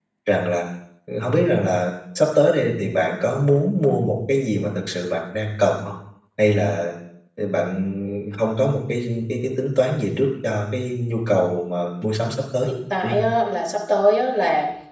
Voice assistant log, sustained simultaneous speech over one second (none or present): none